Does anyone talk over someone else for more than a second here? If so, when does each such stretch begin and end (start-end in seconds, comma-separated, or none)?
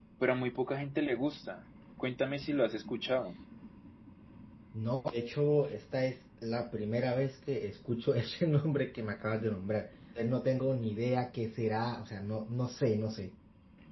none